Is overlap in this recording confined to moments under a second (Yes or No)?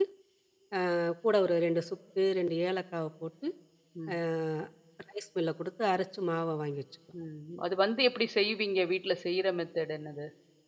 Yes